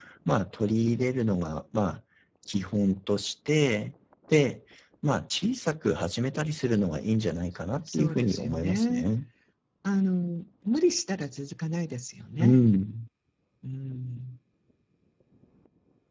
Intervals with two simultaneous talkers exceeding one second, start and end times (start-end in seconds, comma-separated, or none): 7.9-9.1